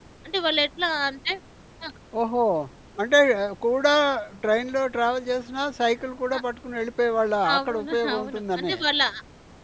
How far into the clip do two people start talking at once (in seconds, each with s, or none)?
7.4 s